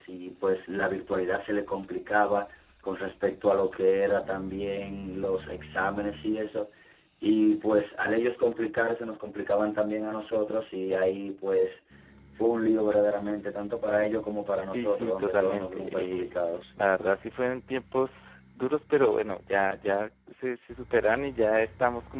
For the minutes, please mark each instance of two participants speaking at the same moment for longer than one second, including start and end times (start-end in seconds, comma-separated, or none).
14.7-16.3